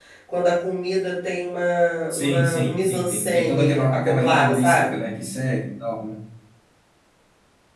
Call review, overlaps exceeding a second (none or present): present